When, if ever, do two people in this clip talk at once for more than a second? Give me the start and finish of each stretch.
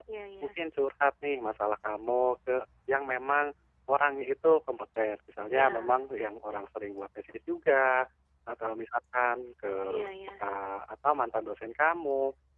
none

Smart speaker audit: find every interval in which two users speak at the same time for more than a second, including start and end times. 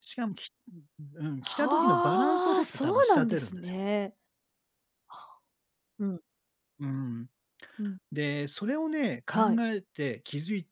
1.5-3.6

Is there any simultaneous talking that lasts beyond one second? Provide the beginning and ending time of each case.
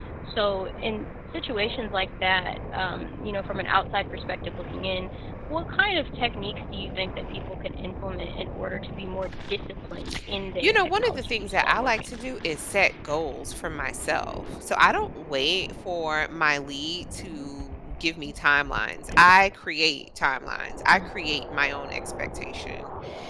10.6-12.1

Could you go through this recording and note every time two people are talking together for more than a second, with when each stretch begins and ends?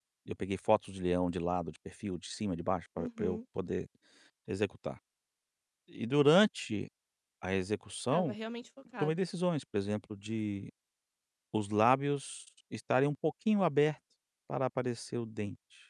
none

